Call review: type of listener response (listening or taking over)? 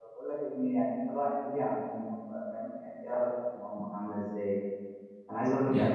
listening